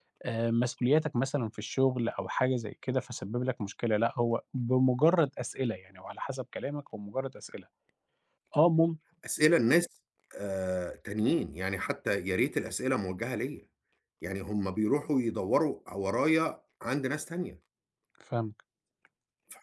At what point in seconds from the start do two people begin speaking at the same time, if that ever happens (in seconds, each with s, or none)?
none